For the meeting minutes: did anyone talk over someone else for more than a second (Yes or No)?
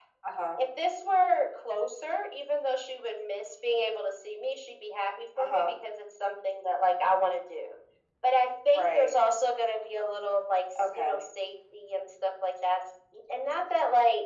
No